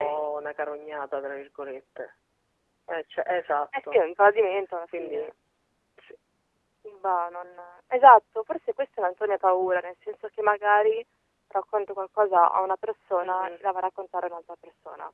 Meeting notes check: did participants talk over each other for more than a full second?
No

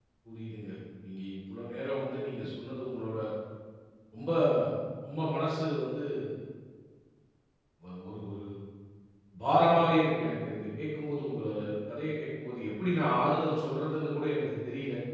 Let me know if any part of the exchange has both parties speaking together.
No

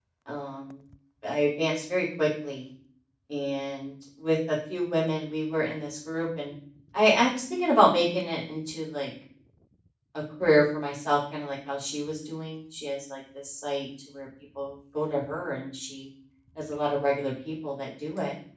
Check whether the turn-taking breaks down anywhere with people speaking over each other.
No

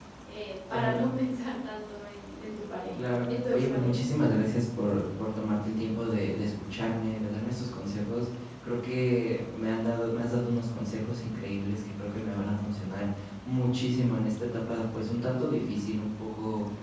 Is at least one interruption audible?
Yes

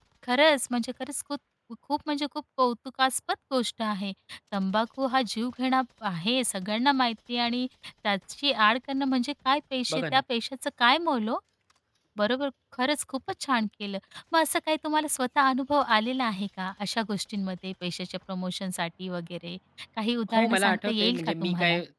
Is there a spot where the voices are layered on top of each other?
Yes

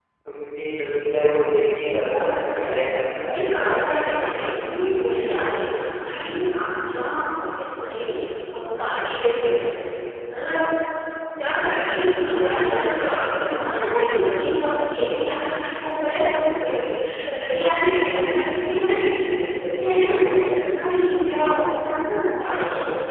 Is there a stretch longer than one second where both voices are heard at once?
Yes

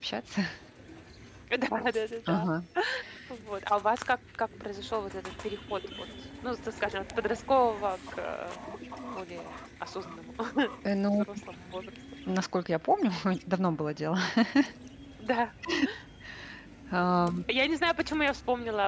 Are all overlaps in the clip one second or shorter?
Yes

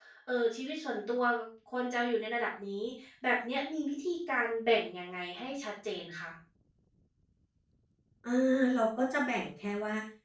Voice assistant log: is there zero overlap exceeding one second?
Yes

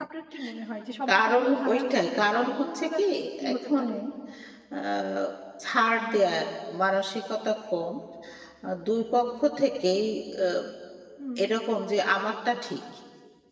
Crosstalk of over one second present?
Yes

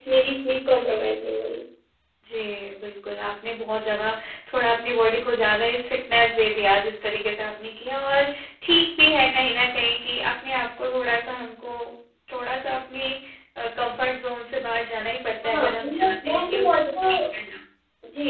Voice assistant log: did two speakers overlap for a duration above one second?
Yes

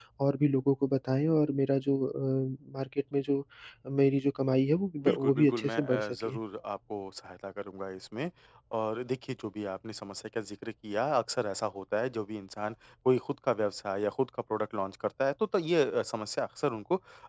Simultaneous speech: Yes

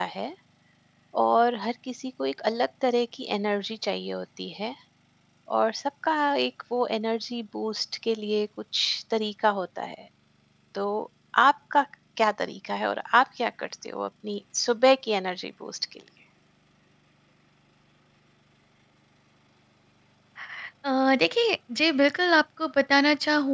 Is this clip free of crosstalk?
Yes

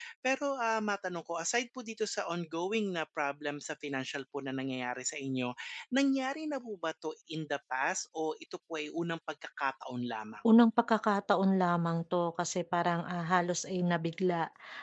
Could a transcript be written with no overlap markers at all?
Yes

